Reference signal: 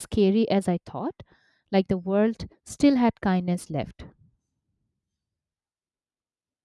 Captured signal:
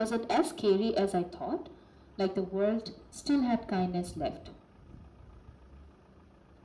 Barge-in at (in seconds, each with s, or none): none